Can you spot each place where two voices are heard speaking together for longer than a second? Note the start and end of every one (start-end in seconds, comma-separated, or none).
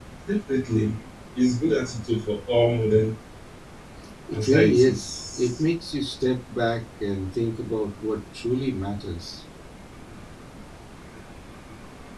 4.3-5.6